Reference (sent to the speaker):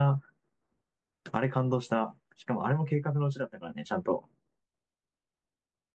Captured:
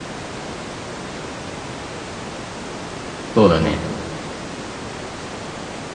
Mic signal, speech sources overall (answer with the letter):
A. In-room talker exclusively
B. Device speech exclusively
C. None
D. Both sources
A